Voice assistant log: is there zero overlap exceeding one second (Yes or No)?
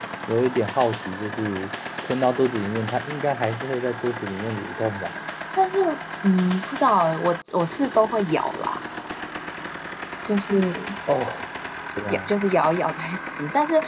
Yes